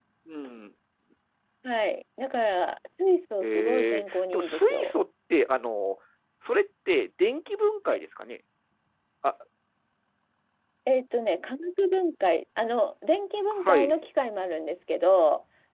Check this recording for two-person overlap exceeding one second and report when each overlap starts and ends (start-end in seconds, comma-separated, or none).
3.4-4.9